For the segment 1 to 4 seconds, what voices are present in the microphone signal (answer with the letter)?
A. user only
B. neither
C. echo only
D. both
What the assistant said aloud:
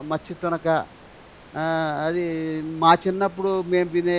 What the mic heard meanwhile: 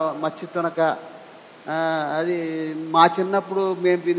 C